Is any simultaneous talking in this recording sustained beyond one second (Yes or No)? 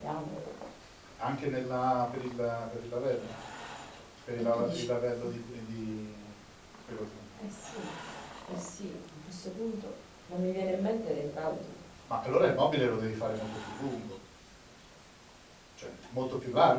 No